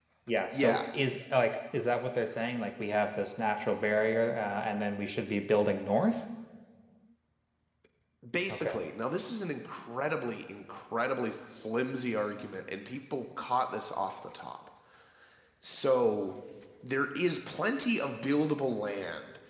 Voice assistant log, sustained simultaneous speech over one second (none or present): none